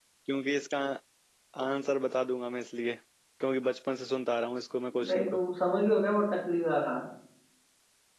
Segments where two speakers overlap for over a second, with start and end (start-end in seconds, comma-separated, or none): none